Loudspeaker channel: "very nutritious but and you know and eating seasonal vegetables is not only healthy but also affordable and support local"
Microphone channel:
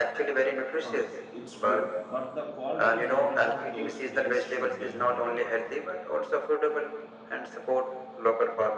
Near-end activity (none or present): present